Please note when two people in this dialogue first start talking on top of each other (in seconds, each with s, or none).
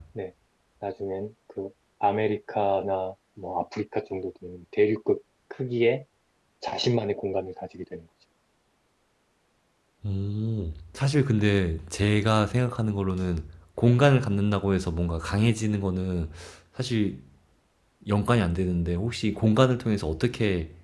none